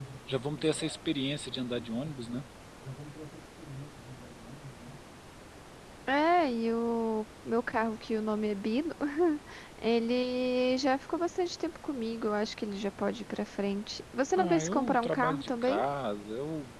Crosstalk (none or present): present